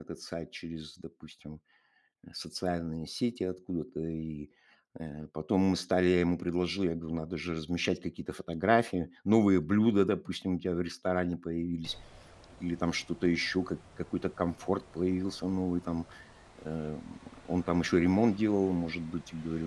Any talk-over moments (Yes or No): No